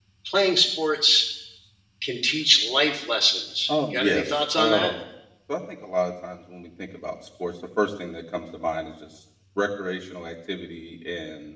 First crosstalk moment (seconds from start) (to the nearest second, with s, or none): 4 s